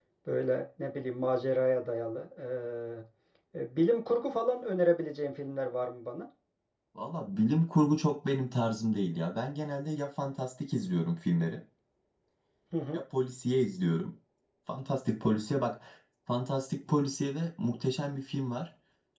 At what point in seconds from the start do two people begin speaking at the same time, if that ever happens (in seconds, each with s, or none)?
none